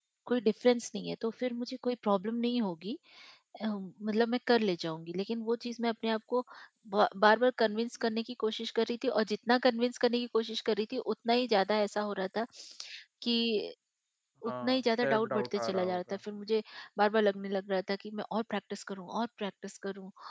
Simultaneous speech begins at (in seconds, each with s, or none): 14.4 s